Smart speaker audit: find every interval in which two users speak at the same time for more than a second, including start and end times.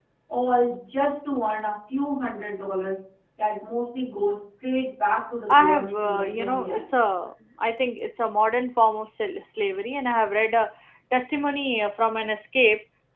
5.5-6.9

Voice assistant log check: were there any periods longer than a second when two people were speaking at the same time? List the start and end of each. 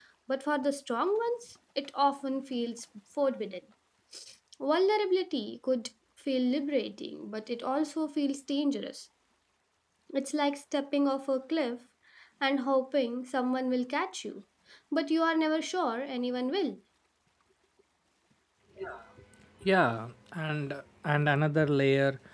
none

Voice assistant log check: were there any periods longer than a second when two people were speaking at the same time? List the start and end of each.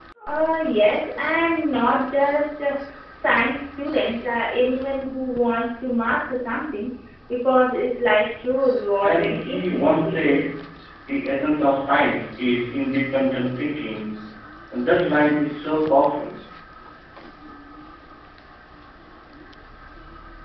9.0-10.4

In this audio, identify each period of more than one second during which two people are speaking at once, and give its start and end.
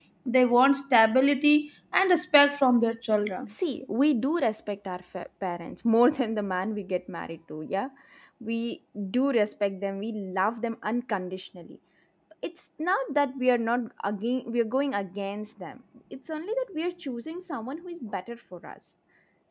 none

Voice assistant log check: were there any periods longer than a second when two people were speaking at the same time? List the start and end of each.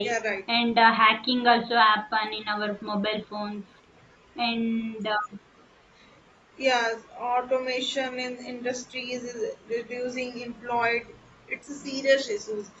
none

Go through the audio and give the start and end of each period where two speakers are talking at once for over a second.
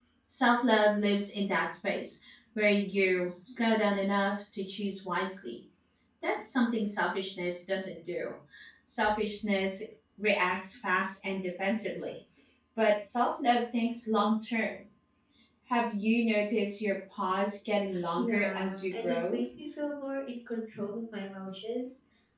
18.2-19.4

